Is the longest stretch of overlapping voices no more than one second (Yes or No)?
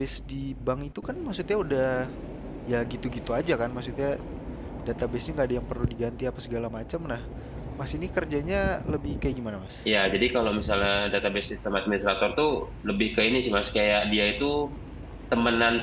Yes